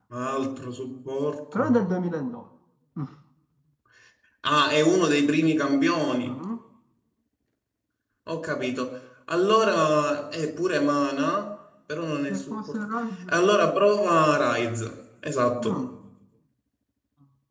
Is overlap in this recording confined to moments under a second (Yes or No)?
Yes